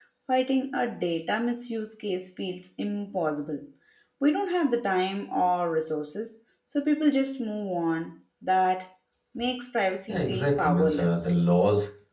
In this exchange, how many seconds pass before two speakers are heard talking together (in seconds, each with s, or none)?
10.1 s